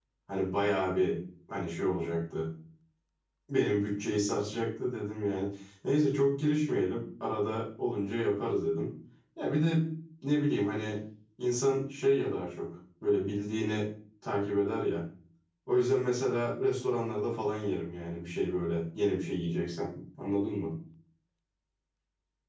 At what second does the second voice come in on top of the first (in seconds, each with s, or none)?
none